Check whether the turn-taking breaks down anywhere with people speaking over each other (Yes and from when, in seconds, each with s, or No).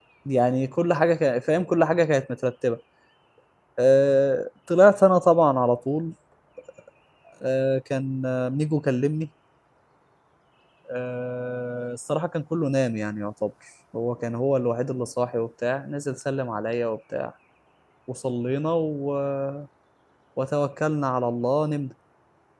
No